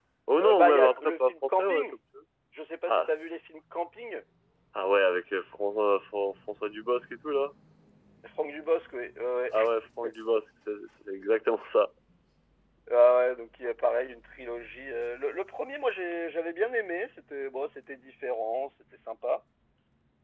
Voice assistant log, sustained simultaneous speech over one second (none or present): present